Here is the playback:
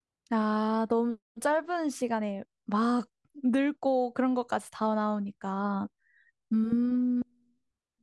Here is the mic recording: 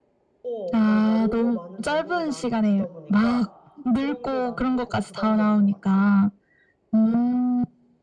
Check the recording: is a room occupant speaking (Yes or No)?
Yes